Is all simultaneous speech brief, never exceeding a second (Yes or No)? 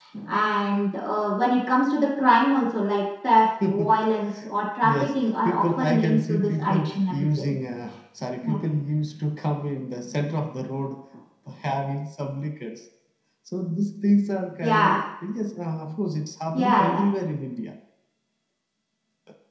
No